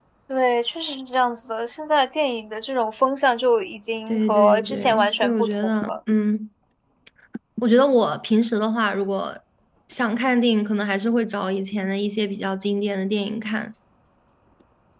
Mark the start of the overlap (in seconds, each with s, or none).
4.1 s